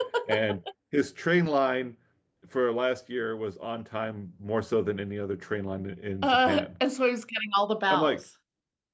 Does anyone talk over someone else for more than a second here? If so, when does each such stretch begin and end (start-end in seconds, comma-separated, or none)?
none